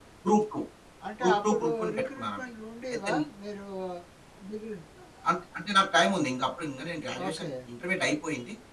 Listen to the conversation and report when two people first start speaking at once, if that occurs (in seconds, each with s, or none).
1.2 s